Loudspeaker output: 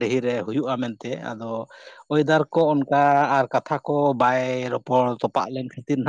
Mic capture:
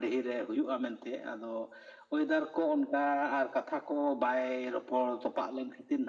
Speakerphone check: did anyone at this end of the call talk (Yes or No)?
No